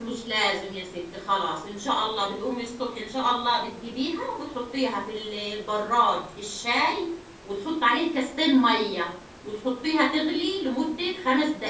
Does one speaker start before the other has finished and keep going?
No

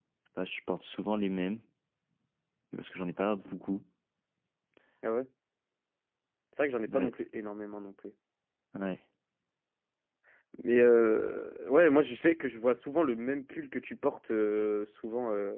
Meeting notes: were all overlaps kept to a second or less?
Yes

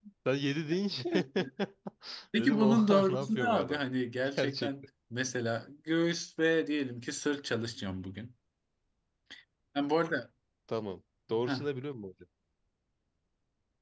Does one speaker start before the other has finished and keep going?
Yes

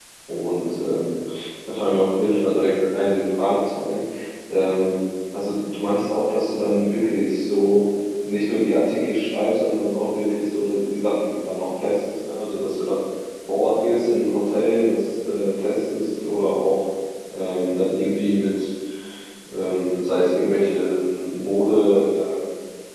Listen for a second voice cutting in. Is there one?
No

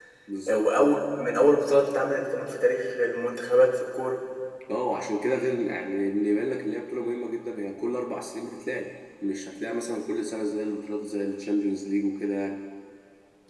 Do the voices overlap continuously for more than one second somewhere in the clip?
No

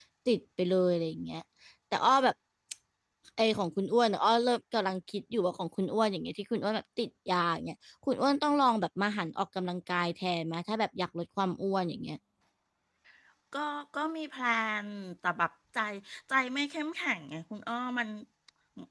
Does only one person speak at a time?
Yes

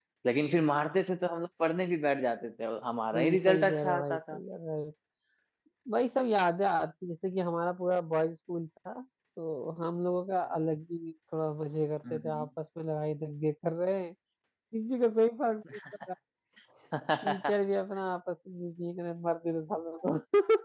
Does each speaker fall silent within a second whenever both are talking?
No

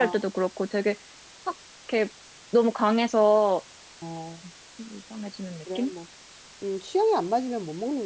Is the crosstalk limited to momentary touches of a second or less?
Yes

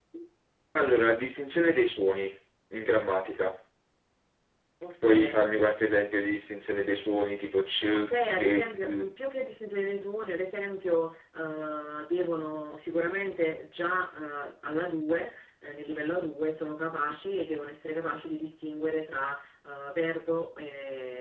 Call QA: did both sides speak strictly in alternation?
No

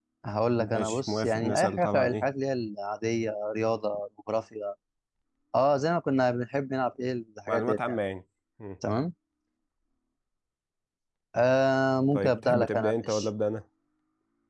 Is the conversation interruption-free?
No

